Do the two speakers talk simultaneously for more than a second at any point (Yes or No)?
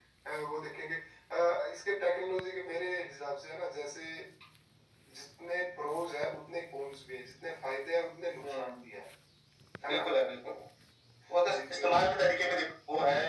No